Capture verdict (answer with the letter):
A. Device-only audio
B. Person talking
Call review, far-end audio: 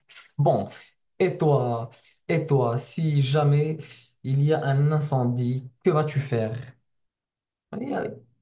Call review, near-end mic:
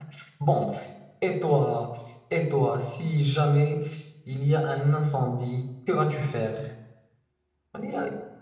A